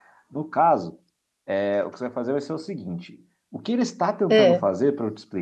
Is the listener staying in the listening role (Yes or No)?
Yes